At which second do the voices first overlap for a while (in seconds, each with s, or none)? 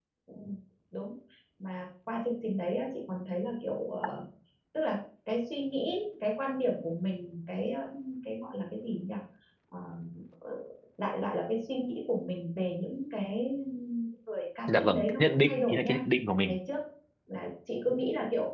14.8 s